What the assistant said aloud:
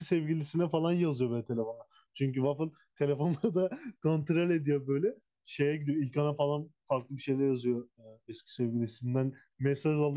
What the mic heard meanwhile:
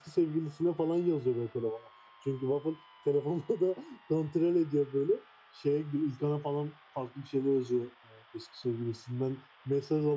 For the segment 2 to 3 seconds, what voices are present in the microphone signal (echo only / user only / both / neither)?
echo only